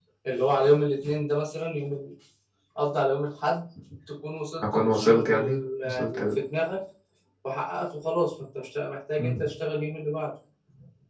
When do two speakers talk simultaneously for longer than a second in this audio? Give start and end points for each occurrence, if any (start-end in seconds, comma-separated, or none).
4.6-6.3